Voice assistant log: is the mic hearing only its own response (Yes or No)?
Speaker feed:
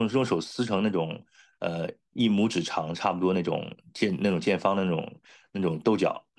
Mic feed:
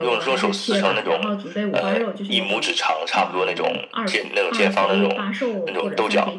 No